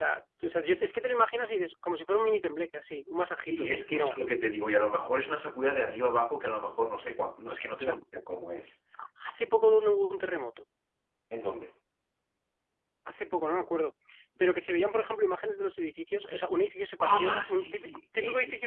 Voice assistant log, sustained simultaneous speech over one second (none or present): present